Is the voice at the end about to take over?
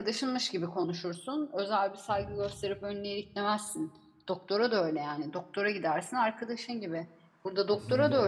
No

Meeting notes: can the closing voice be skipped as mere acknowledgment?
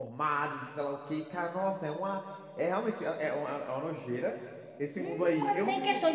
No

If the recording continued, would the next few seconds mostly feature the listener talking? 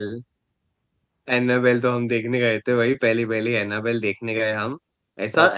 No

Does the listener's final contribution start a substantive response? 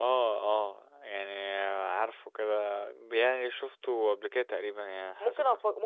Yes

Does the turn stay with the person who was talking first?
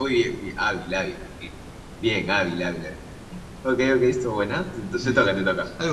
No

